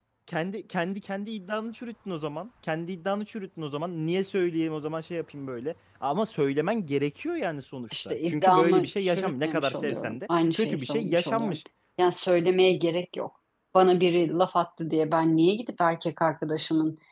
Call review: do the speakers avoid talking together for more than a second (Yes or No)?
No